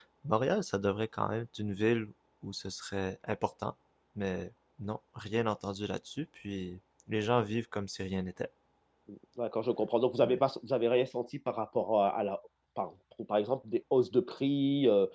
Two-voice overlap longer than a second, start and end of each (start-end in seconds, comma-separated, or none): none